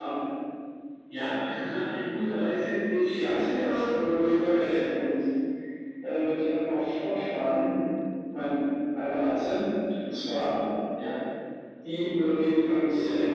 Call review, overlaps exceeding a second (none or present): present